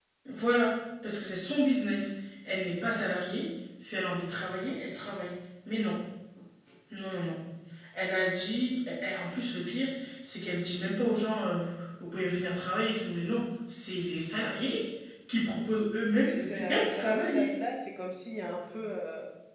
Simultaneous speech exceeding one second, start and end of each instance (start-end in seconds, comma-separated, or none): 16.2-17.5